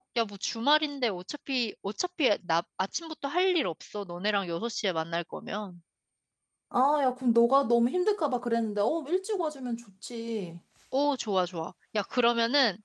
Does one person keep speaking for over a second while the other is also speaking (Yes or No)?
No